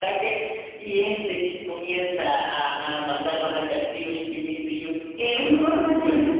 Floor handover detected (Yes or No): Yes